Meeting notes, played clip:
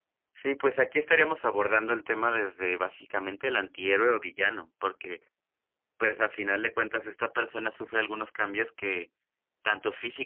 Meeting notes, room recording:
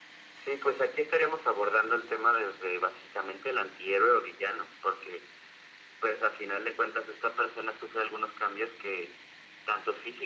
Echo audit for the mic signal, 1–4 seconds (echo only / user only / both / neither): echo only